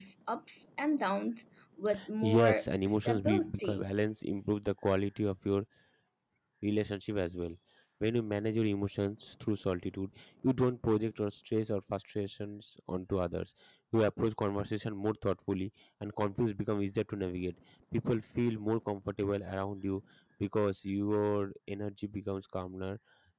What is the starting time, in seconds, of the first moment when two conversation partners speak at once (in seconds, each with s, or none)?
2.2 s